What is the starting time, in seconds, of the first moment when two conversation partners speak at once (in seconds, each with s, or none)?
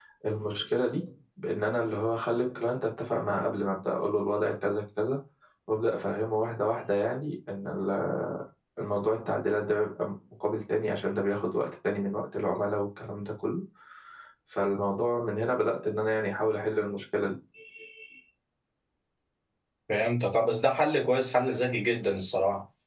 none